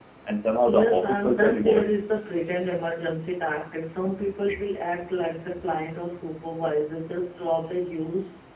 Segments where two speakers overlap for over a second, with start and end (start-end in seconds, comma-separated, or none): 0.7-1.9